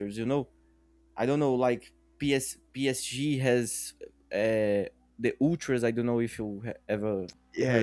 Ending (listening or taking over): taking over